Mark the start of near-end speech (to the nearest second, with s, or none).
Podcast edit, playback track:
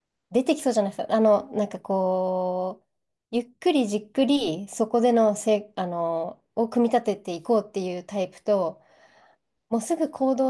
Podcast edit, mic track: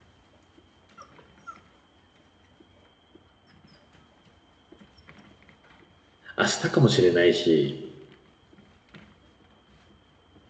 6 s